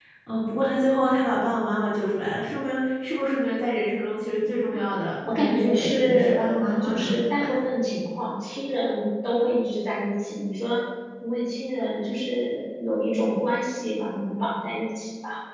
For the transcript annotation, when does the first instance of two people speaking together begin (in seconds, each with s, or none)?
5.2 s